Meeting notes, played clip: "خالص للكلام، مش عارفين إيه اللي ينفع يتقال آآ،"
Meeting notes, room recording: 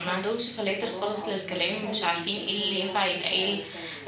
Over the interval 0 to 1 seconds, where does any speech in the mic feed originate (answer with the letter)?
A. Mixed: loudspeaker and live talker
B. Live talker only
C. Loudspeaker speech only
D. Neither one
A